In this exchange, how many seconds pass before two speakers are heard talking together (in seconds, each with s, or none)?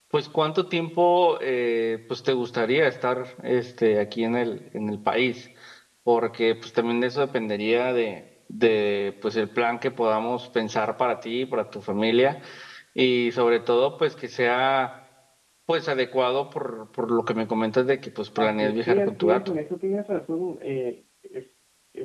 18.4 s